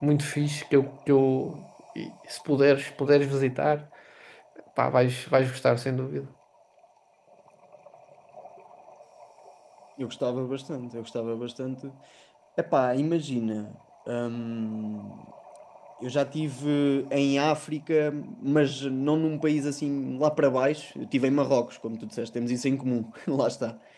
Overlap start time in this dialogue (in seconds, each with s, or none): none